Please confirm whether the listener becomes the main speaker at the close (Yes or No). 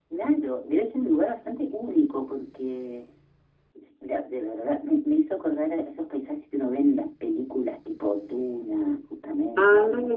Yes